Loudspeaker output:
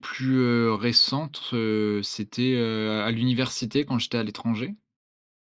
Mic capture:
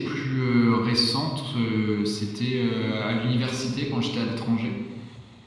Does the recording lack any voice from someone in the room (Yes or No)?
Yes